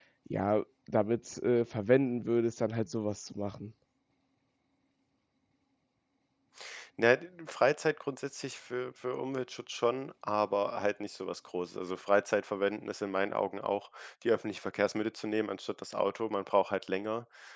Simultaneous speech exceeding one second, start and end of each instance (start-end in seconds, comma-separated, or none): none